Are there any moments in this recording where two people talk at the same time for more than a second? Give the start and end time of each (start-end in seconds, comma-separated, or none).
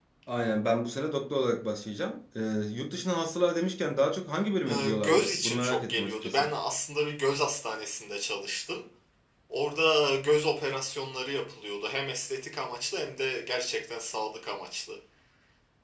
4.7-6.5